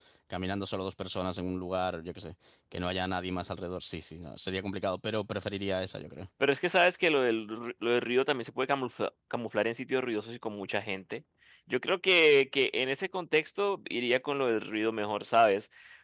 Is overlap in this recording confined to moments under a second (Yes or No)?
Yes